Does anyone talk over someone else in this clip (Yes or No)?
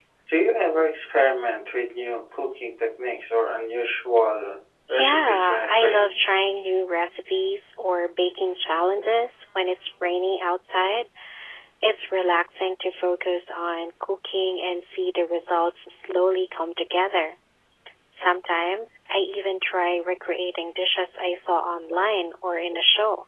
Yes